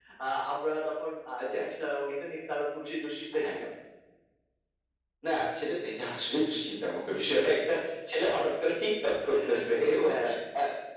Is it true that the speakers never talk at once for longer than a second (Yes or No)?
Yes